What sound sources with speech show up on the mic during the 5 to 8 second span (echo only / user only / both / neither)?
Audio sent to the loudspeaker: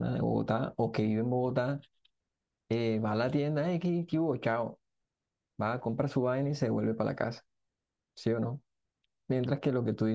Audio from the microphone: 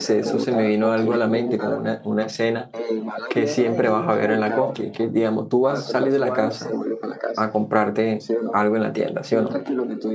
both